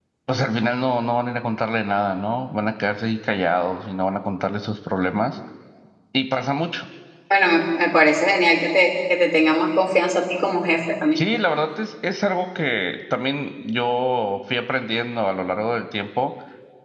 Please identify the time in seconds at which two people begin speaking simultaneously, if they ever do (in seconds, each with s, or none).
none